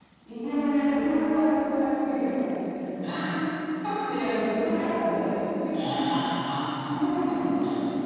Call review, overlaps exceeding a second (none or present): none